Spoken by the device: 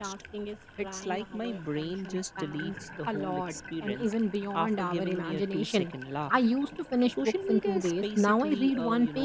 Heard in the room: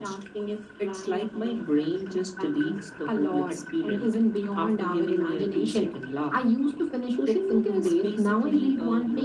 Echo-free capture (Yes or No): No